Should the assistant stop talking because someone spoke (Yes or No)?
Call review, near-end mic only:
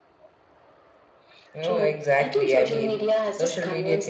Yes